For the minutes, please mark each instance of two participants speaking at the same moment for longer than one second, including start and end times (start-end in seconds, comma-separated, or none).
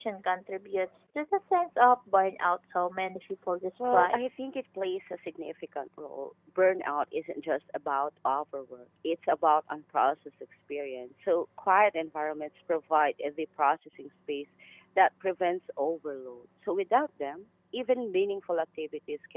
none